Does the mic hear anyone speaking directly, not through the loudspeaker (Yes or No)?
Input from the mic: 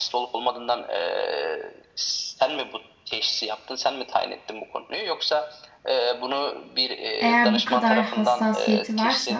Yes